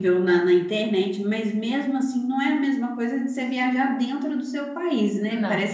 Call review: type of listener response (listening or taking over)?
listening